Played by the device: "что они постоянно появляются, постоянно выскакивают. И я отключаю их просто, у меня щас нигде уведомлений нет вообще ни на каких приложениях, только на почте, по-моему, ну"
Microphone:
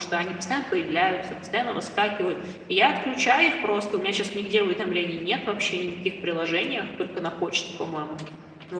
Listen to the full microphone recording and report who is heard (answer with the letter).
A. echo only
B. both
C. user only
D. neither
A